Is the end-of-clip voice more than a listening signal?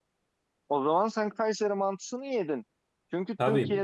No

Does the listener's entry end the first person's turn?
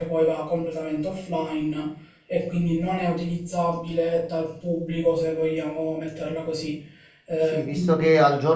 Yes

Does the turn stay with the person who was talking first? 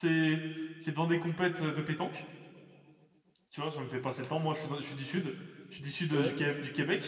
Yes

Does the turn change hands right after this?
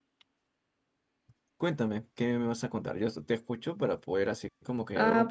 Yes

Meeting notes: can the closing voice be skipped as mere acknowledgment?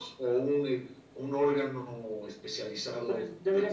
No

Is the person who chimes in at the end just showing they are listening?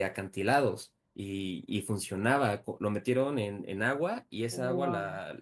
Yes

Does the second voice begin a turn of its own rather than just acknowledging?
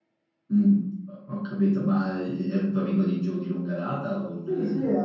Yes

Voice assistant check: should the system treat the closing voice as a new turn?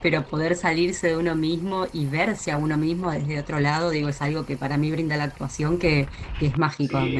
No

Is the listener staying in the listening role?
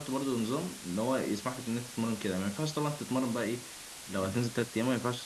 Yes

